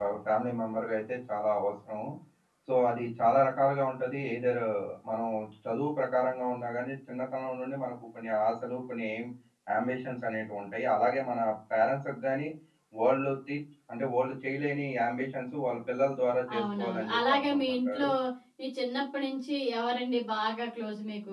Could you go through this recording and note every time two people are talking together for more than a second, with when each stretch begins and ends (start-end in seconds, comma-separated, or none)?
16.6-18.1